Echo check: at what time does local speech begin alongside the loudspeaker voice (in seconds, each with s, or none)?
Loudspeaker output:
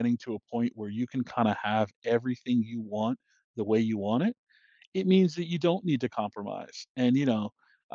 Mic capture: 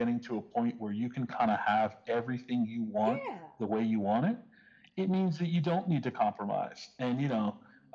3.0 s